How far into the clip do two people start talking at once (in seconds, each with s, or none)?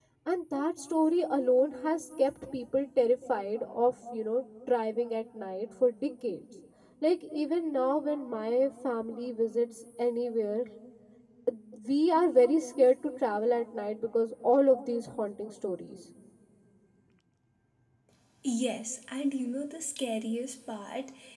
none